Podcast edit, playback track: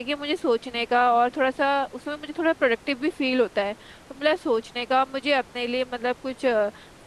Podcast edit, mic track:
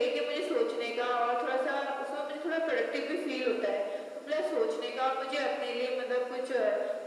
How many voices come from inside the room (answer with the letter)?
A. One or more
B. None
B